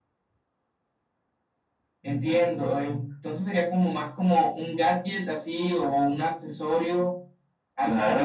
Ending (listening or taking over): taking over